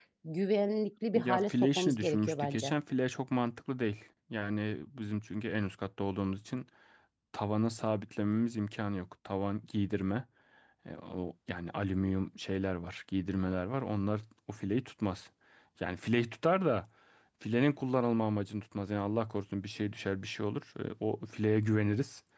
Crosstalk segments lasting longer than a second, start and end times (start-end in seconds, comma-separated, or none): 1.1-2.7